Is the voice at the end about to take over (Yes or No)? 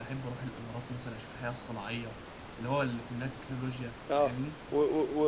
Yes